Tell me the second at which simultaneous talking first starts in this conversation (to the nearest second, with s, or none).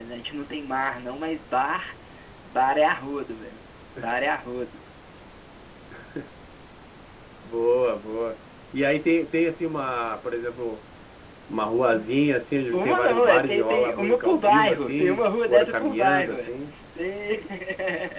13 s